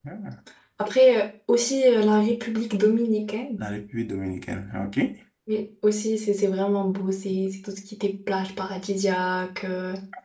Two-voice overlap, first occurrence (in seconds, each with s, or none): none